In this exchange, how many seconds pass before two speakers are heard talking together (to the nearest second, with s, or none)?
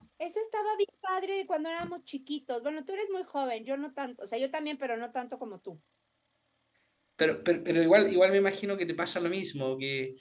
none